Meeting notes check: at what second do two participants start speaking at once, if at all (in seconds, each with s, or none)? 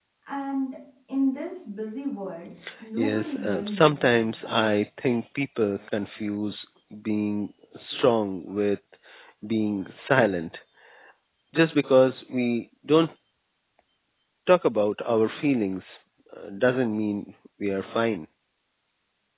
3.0 s